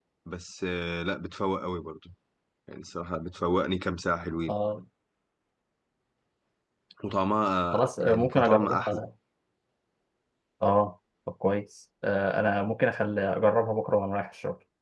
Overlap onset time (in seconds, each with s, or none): 7.7 s